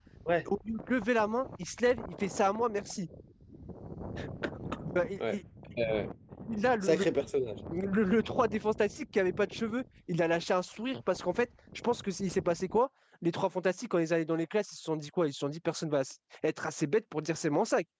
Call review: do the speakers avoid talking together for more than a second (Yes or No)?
Yes